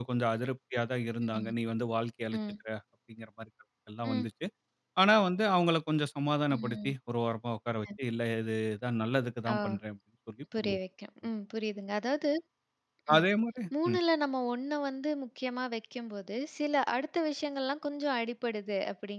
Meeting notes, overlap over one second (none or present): none